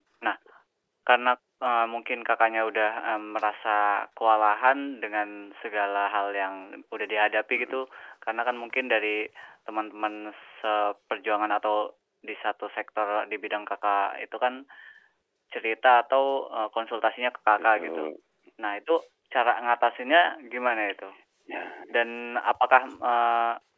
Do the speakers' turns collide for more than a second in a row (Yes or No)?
No